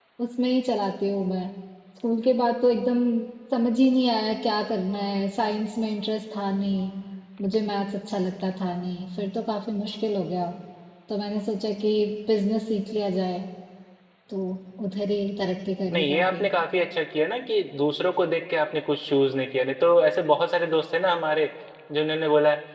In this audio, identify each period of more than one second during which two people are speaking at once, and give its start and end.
none

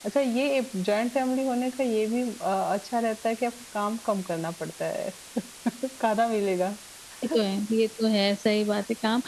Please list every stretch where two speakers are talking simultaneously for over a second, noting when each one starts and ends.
none

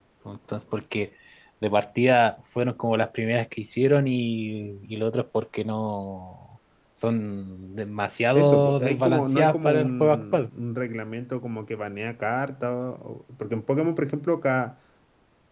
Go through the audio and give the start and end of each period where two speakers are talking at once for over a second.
8.4-10.5

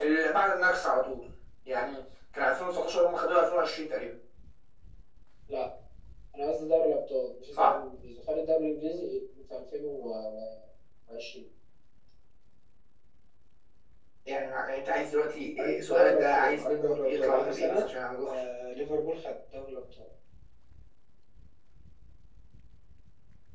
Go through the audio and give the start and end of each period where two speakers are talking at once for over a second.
15.6-17.8

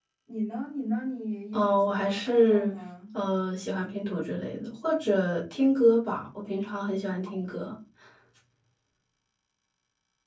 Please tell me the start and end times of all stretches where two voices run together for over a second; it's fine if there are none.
1.5-2.8

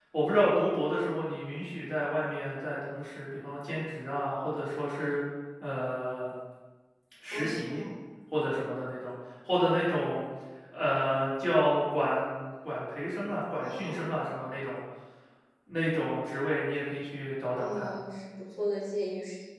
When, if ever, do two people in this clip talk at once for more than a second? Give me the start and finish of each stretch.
none

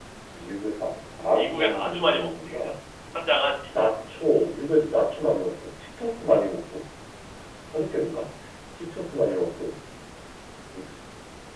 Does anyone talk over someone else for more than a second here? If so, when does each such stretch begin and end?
1.4-2.6

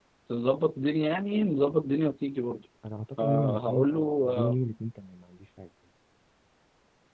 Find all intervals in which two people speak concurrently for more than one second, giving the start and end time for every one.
3.2-4.5

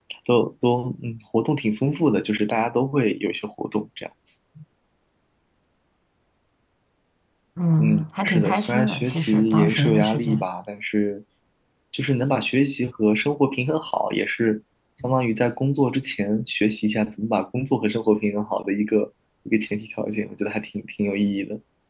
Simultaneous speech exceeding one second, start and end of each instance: 7.8-10.4

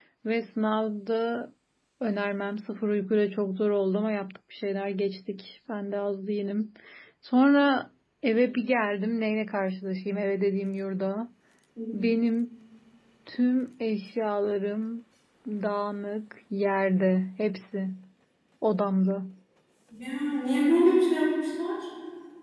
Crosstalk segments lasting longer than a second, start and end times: none

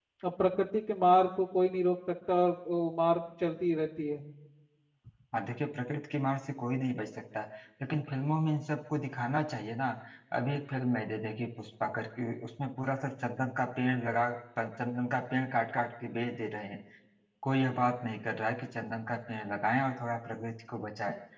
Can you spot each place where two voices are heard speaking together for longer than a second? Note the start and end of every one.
none

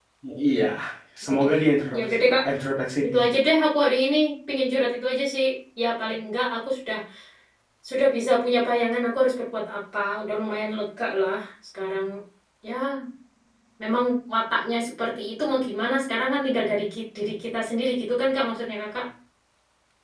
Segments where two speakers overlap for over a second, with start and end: none

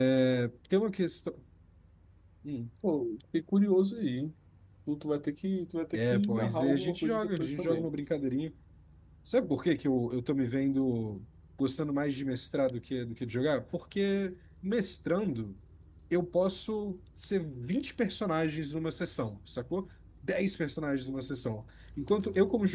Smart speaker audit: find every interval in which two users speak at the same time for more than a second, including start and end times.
5.9-7.9

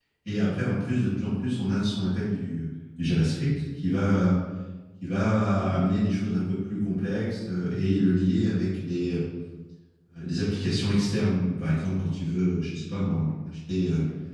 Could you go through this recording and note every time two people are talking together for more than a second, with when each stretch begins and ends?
none

